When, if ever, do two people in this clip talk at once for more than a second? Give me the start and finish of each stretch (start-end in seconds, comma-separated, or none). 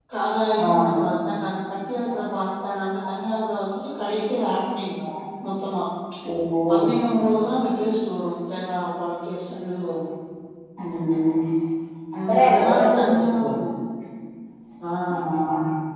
12.2-13.5